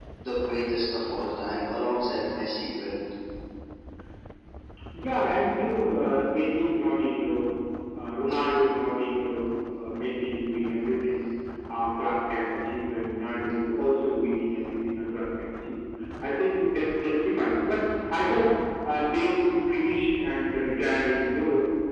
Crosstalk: none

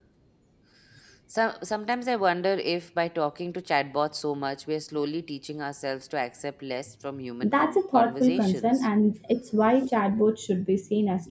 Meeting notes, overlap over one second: present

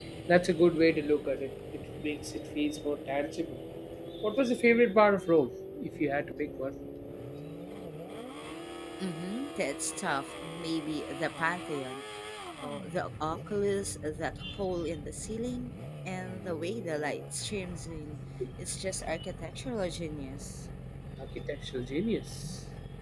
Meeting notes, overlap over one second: none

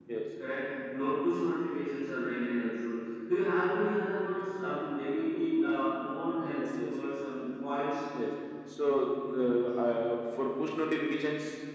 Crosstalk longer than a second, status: none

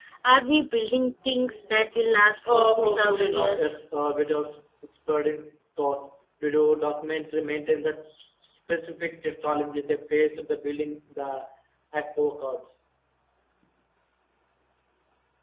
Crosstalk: present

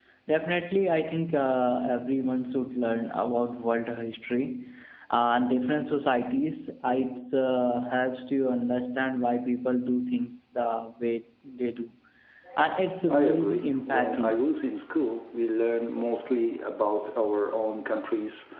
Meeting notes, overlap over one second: present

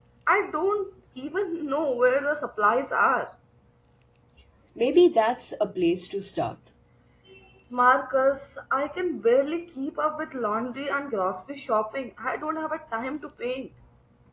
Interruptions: none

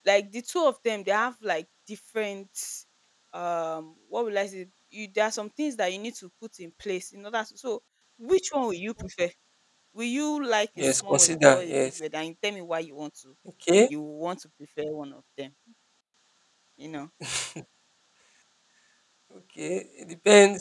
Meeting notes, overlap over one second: present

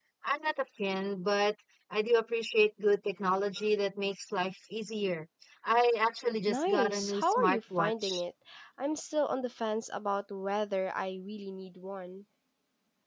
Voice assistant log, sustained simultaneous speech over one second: present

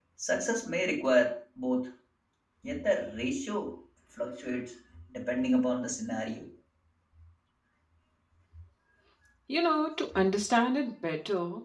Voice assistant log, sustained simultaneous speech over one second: none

